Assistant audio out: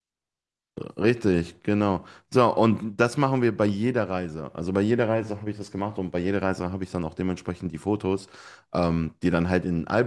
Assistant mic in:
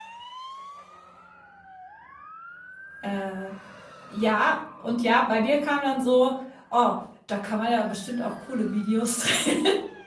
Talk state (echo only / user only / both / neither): user only